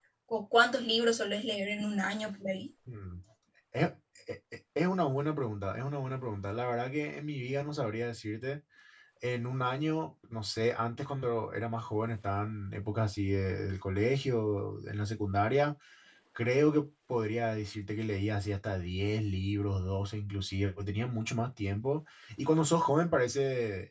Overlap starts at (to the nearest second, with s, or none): none